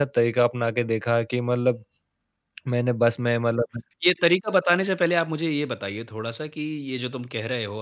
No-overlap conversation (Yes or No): Yes